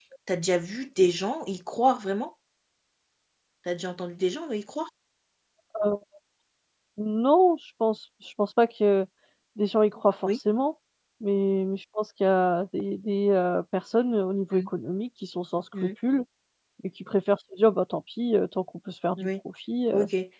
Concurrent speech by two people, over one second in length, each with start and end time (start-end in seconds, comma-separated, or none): none